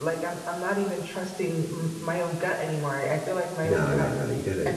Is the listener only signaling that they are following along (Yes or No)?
No